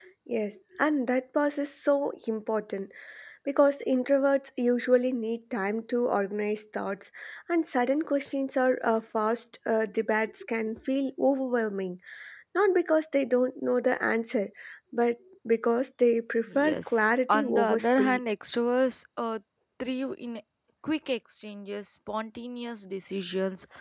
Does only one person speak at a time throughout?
No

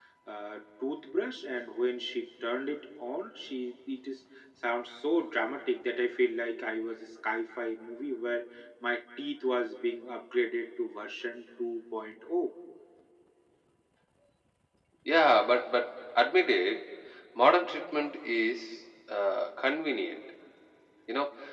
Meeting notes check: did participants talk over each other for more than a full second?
No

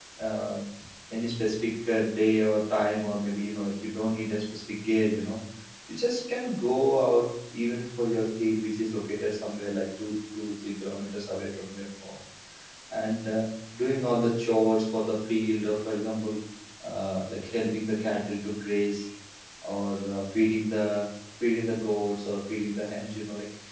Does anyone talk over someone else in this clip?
No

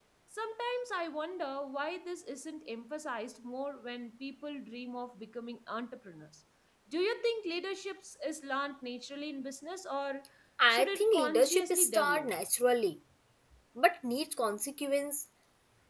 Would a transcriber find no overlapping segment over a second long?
No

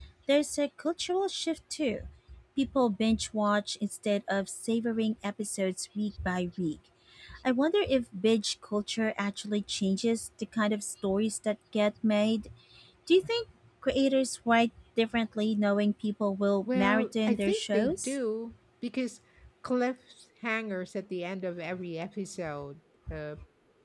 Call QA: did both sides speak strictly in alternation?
No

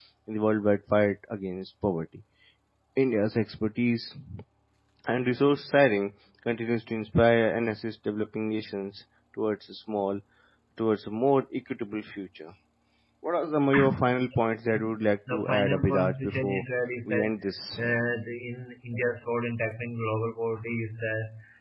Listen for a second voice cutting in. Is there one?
Yes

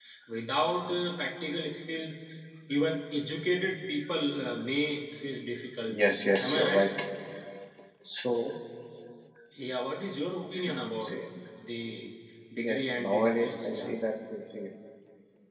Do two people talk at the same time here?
Yes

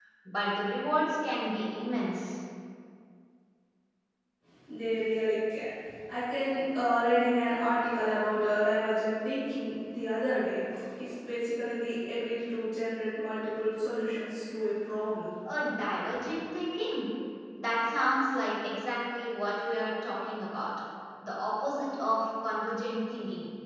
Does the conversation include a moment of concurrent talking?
No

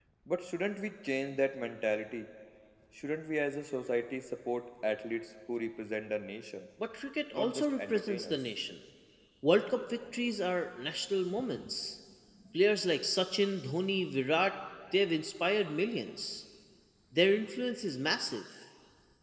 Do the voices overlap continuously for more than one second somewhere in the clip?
Yes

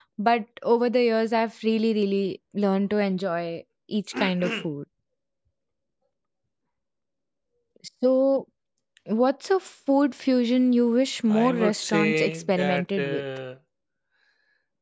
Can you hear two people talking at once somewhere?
Yes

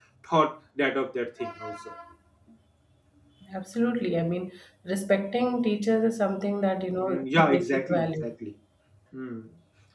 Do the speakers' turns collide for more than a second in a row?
Yes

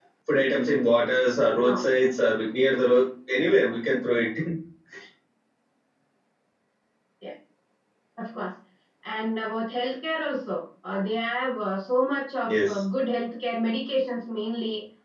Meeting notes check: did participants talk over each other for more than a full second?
No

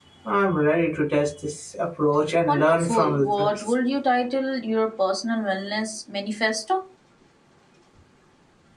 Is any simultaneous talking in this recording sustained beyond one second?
Yes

